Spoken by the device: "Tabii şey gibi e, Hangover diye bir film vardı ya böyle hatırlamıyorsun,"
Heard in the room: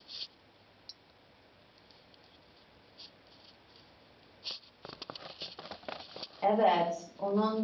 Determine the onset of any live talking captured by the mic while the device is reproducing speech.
6 s

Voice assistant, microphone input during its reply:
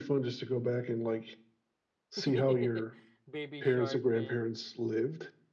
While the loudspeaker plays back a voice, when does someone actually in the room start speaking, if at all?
2 s

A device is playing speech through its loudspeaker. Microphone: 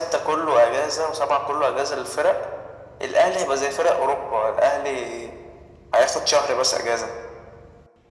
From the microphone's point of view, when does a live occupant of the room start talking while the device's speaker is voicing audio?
none

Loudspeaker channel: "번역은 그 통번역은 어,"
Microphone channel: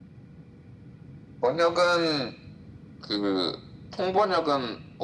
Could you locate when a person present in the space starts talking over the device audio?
none

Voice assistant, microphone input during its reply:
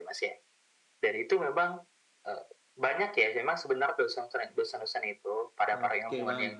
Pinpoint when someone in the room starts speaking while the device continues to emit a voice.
6 s

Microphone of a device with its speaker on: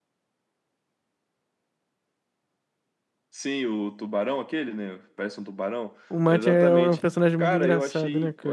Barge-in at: 6 s

